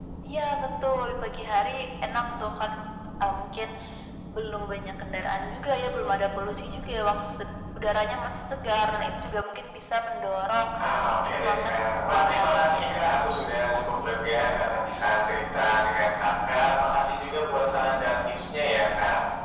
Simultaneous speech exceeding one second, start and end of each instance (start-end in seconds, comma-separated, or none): 11.2-12.8